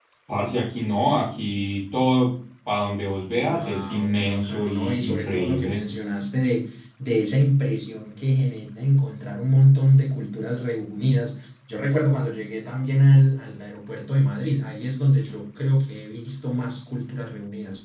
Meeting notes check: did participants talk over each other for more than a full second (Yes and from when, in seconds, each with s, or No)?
Yes, from 3.4 s